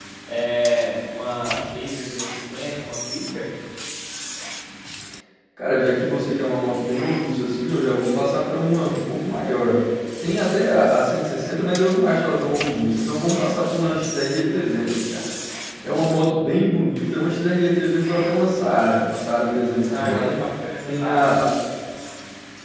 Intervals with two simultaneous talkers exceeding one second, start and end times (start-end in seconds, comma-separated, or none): none